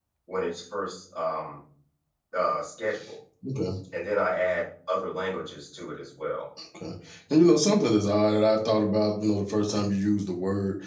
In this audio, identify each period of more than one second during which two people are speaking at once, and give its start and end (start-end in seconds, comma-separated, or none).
none